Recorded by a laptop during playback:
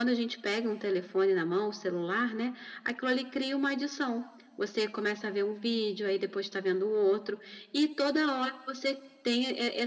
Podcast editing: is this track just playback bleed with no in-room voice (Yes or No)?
Yes